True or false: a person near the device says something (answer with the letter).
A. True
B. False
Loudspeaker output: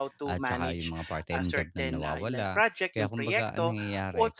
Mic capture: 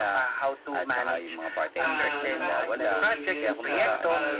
A